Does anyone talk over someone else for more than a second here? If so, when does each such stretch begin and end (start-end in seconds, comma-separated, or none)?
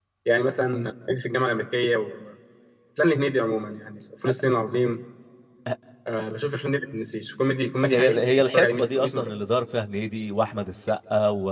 7.8-9.3